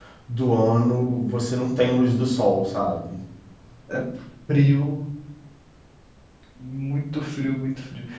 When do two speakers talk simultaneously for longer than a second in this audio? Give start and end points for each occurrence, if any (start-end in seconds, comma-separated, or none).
none